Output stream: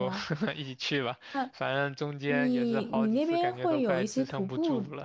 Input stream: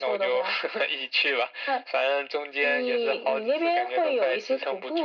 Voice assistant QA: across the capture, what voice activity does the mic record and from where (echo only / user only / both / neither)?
echo only